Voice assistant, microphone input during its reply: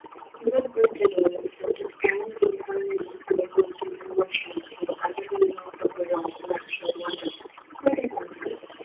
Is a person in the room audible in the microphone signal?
No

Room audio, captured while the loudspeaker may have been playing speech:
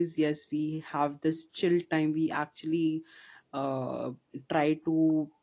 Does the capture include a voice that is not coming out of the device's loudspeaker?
Yes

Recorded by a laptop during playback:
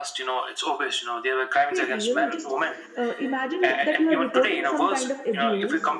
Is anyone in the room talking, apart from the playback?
Yes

